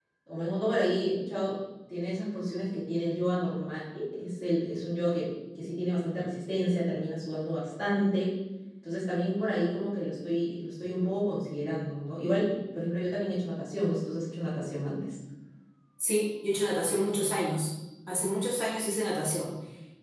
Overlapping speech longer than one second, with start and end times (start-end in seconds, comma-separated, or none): none